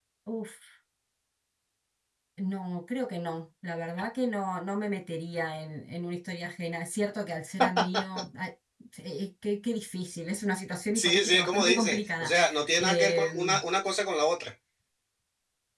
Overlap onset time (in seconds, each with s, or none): 11.0 s